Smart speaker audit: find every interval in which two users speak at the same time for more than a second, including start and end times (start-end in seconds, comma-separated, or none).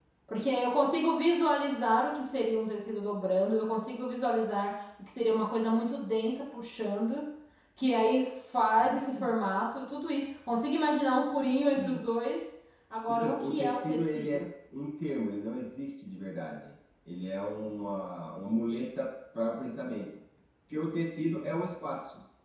13.1-14.4